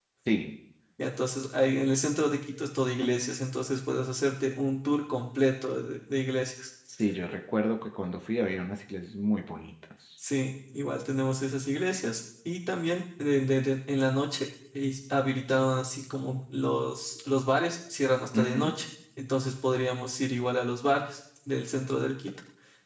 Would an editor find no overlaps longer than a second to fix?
Yes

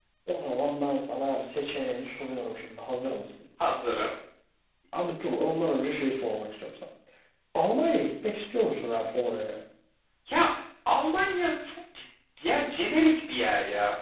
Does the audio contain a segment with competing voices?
No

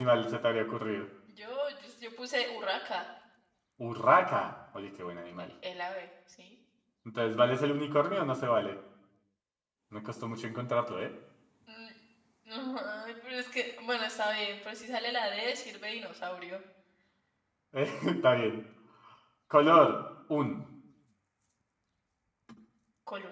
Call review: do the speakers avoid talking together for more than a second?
Yes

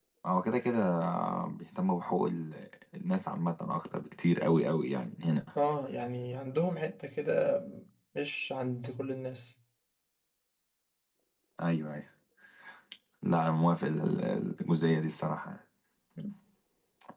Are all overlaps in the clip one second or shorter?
Yes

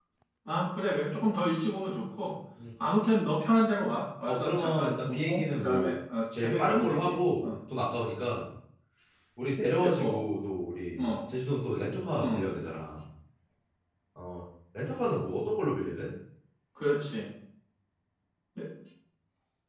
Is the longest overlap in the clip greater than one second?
Yes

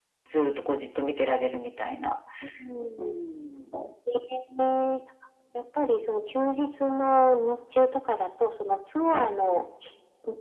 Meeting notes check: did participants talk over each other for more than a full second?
No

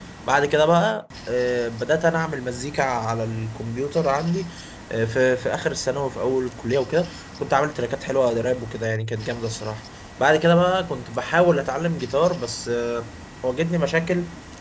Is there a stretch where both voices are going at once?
No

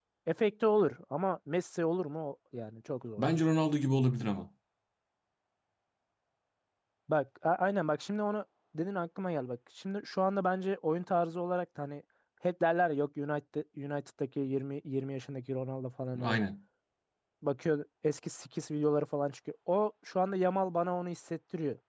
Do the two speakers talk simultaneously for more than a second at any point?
No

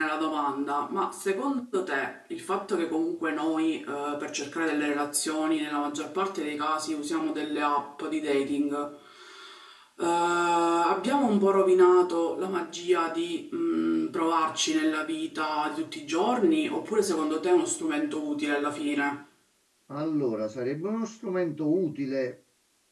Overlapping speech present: No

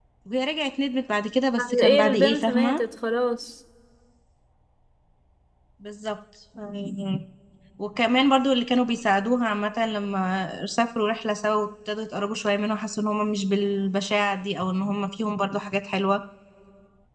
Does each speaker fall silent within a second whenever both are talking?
No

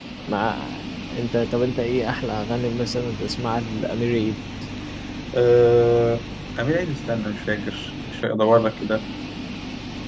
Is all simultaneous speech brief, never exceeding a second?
Yes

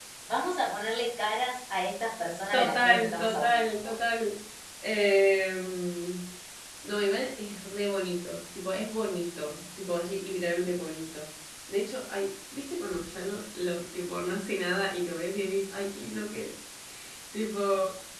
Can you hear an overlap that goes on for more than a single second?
Yes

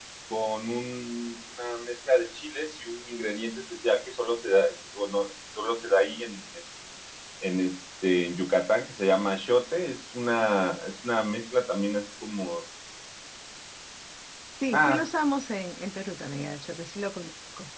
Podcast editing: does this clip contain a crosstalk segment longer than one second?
No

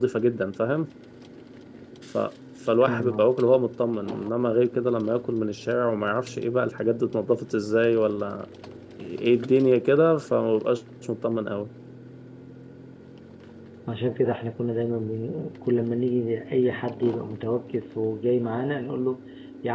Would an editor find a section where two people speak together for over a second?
No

